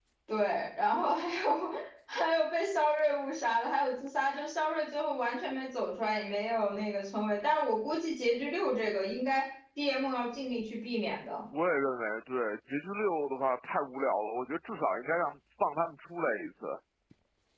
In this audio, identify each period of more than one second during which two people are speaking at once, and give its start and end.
none

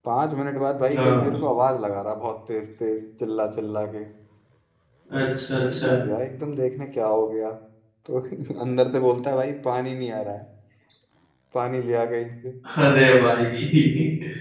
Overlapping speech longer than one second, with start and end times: none

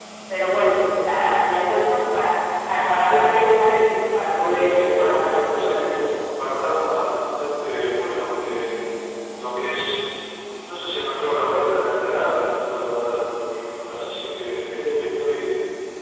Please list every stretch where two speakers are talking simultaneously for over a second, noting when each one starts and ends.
4.4-6.1

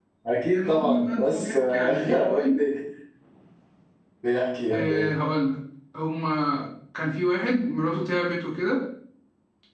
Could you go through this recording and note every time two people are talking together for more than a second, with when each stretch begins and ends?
0.6-2.6

